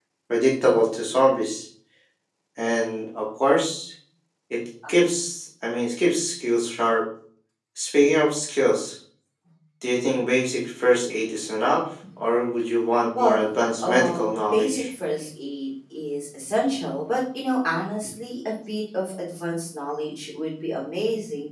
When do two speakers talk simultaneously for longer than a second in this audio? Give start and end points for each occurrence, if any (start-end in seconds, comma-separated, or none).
13.2-14.8